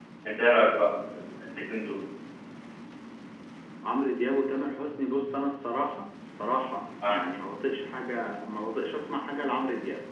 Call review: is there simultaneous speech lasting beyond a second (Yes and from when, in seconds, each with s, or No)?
No